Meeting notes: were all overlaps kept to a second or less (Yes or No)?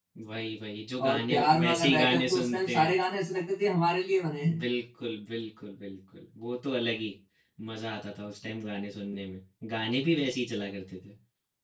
No